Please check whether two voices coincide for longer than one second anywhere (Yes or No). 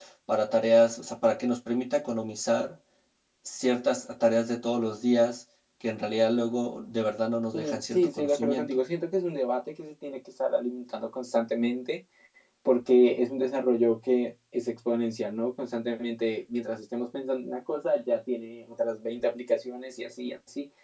Yes